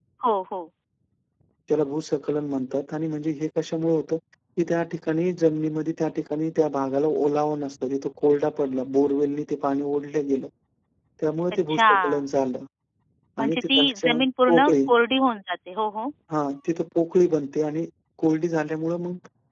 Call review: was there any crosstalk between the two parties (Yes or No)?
Yes